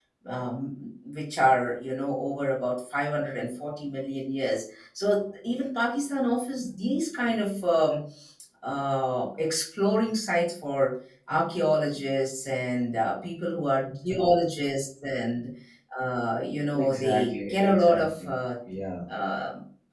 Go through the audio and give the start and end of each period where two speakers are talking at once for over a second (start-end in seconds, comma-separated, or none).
16.7-18.3